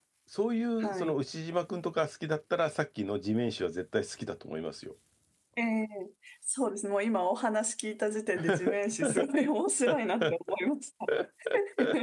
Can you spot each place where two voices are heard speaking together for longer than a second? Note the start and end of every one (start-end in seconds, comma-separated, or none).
none